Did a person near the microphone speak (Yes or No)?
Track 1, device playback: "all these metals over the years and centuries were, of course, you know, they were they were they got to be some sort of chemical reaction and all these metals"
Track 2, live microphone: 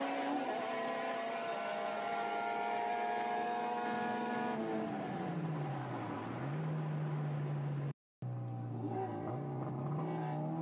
No